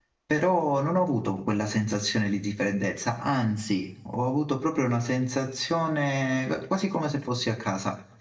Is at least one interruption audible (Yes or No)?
No